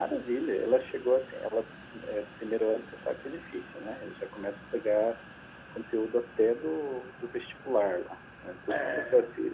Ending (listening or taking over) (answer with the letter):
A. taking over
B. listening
B